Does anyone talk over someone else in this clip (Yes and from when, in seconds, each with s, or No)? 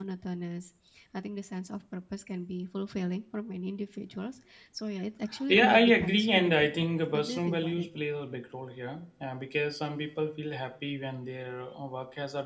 Yes, from 5.5 s